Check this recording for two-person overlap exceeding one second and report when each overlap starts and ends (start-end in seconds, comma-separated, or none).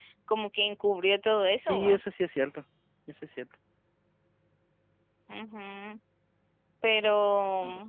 none